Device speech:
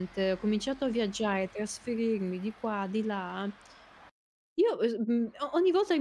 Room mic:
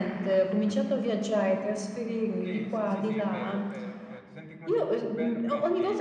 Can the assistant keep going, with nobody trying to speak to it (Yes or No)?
No